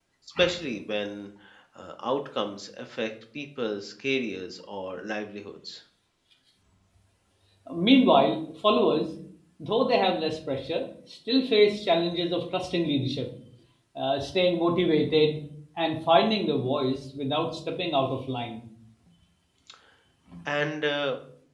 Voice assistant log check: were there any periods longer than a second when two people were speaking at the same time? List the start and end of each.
none

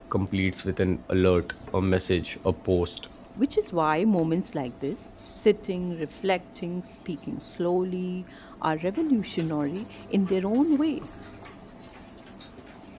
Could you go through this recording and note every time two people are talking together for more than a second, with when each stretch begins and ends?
none

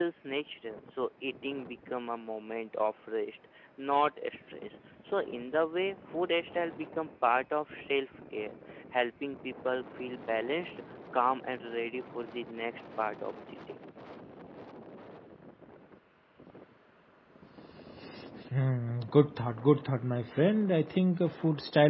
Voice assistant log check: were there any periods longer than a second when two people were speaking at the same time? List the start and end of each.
none

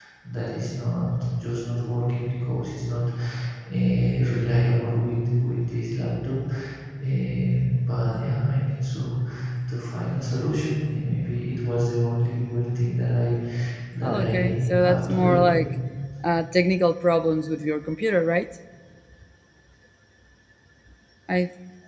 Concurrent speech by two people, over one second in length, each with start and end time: 14.0-15.4

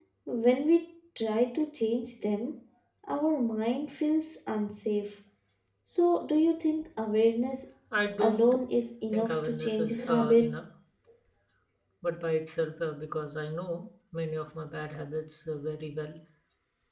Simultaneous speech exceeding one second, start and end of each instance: 9.1-10.5

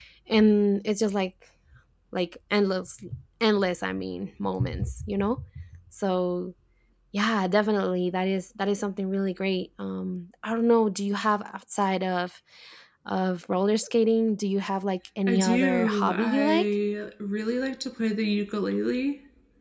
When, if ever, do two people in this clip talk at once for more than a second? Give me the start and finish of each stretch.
15.3-16.7

